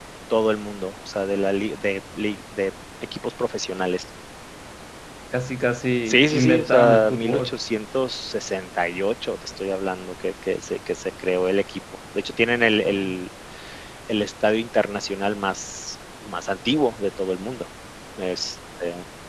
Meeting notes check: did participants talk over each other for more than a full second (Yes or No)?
Yes